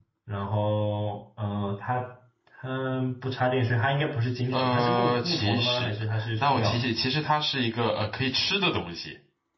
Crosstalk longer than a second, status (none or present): present